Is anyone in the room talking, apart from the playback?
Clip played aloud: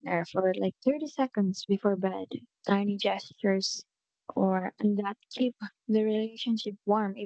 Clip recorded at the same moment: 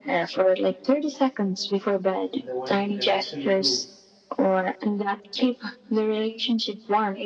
Yes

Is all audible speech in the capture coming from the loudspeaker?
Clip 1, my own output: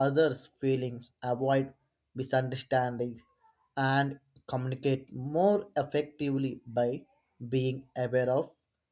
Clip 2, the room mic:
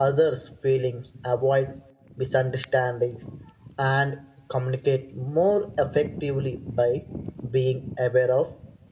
Yes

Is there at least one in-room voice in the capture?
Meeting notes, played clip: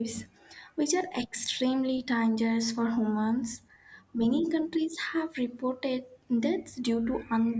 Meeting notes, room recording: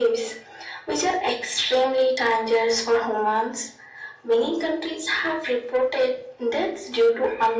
No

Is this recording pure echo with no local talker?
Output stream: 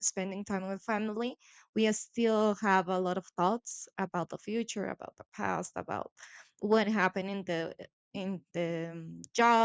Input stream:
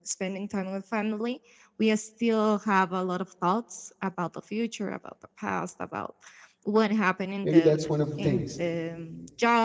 No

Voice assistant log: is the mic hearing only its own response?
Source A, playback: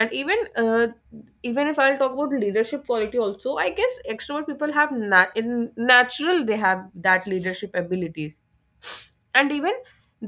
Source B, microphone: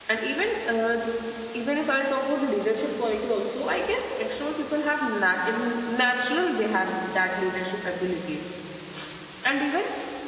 Yes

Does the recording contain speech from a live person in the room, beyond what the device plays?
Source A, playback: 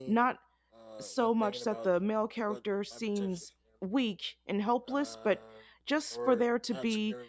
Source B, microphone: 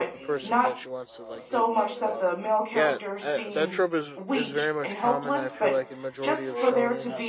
Yes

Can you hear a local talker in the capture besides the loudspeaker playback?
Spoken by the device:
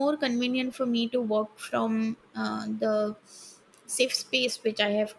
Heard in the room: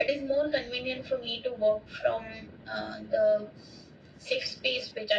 No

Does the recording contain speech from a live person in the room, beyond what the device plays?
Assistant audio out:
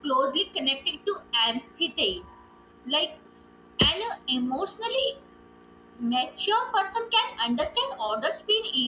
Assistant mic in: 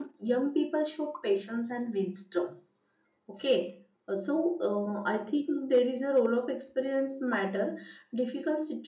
Yes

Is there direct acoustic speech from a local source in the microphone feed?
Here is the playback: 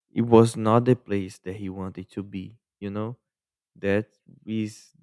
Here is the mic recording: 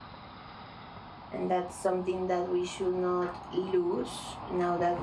Yes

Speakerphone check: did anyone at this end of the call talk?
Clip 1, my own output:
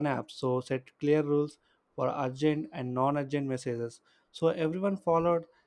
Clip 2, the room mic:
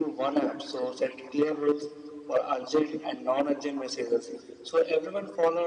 No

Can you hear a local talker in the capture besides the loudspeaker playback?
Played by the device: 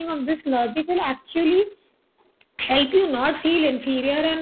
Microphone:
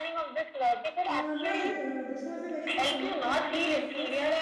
Yes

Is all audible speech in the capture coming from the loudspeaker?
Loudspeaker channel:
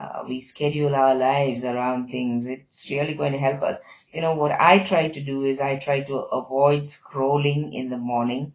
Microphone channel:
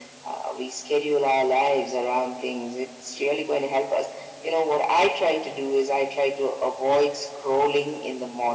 Yes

